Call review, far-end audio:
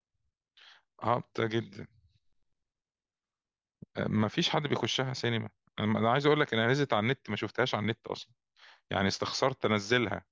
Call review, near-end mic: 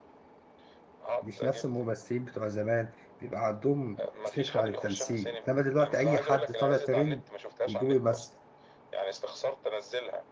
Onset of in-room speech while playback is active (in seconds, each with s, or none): 1.2 s